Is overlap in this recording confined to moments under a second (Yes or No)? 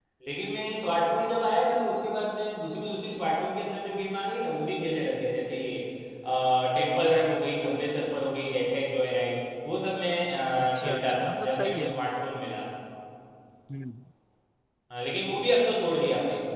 No